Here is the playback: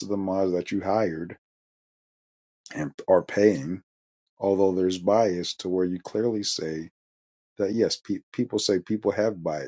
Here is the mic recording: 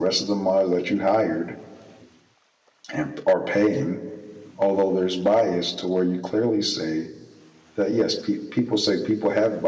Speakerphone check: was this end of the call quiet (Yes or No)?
Yes